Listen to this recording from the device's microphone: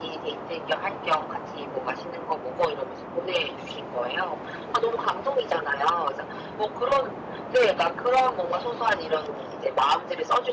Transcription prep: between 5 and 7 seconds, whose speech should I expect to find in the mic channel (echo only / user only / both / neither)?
echo only